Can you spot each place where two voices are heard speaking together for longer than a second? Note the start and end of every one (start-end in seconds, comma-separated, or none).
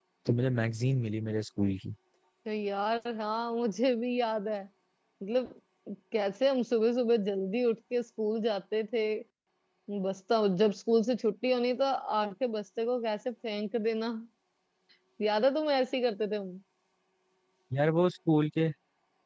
none